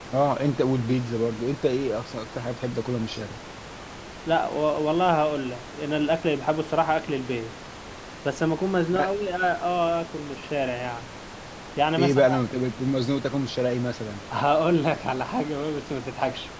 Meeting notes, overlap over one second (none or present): none